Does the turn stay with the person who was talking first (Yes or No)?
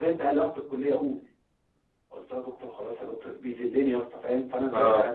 Yes